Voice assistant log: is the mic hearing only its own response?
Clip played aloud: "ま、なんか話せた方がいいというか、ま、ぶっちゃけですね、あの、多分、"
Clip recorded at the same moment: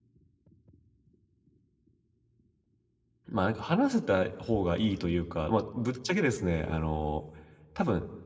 Yes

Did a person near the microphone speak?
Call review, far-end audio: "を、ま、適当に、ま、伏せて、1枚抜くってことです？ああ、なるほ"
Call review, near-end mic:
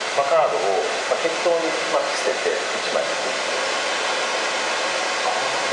No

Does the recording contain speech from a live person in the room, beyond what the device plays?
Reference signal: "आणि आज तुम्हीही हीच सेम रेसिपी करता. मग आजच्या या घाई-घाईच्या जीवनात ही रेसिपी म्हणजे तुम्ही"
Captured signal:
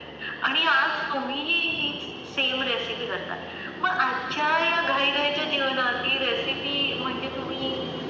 No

